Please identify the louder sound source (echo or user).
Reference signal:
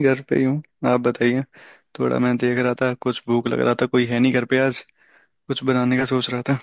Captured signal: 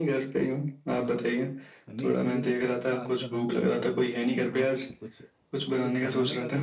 echo